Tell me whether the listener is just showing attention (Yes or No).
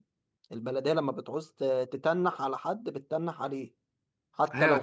No